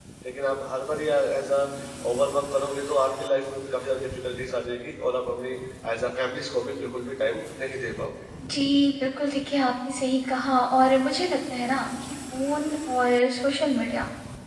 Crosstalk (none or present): none